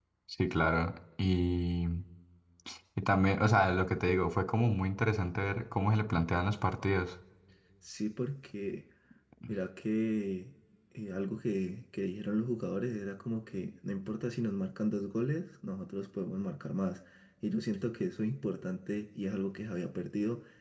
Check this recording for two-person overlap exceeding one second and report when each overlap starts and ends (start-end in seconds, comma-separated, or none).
none